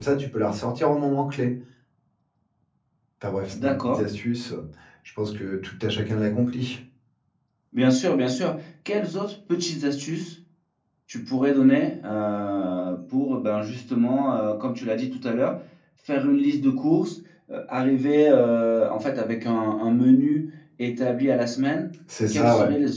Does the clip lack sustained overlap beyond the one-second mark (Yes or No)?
Yes